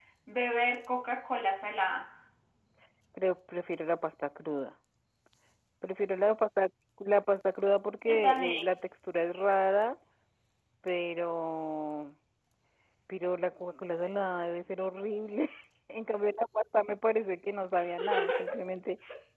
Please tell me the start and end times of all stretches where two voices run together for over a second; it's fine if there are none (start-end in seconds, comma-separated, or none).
none